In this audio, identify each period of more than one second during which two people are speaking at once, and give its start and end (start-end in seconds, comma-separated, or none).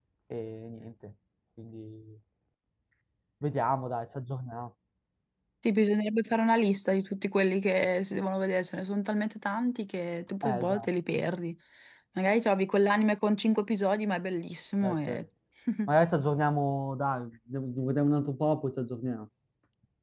none